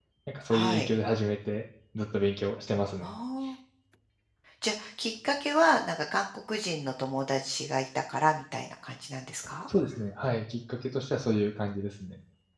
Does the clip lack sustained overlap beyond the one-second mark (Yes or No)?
Yes